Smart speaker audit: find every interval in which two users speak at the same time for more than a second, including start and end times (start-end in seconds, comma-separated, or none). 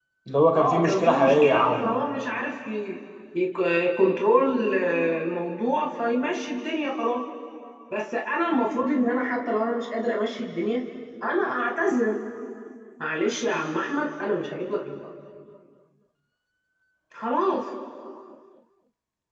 0.6-2.0